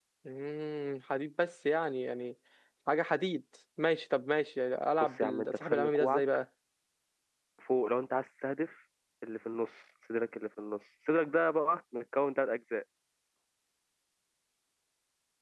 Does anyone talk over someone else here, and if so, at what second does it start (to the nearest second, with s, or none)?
5 s